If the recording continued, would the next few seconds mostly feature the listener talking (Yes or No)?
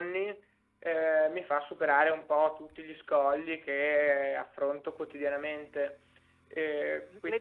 Yes